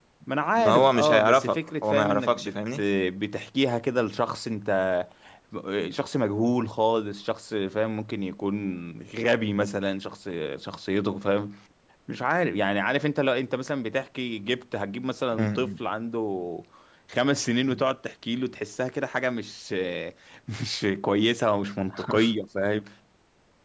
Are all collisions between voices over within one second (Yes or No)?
No